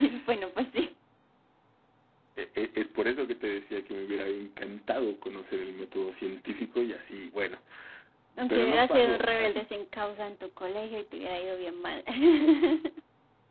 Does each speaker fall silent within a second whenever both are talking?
No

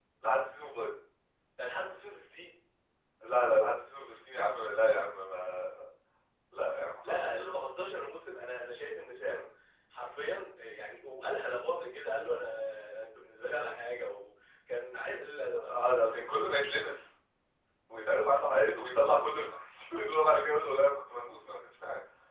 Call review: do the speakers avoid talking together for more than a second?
Yes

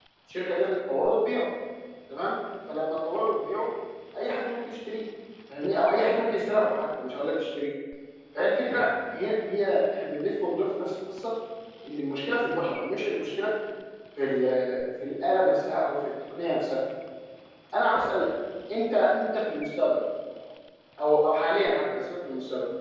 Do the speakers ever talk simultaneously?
No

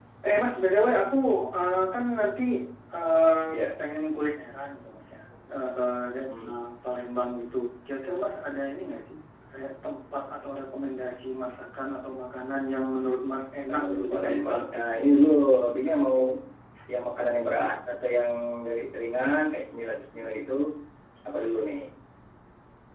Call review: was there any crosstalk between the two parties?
Yes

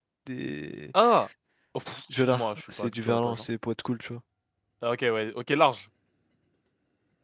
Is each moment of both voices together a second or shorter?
No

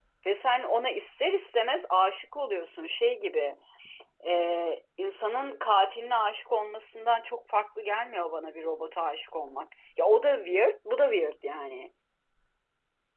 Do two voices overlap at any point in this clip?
No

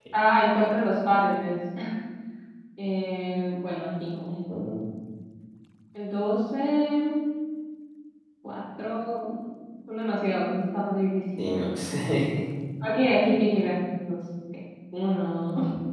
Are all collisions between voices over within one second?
Yes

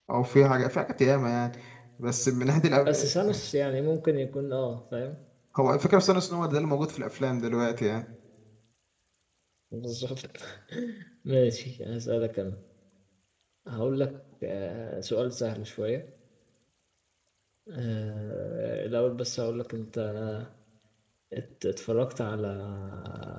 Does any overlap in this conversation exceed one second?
No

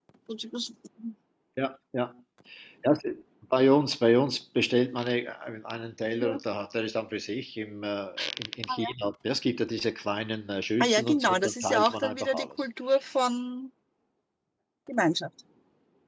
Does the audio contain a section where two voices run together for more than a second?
Yes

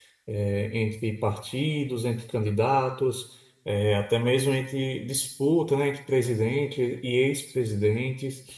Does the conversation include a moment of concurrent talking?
No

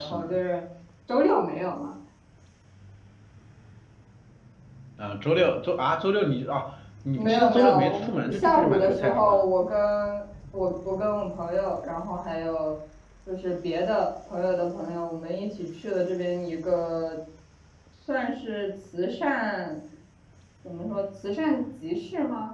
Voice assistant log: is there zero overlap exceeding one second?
No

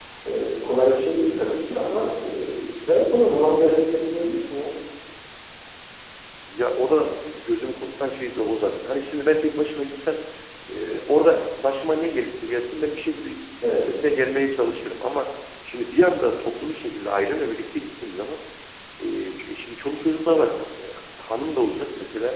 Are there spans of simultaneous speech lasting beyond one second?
No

